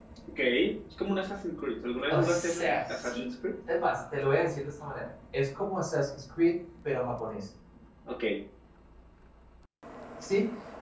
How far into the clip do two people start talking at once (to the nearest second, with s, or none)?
2 s